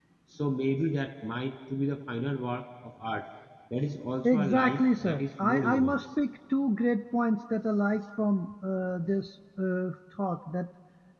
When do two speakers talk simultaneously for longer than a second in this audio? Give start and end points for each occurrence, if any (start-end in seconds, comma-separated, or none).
4.2-6.0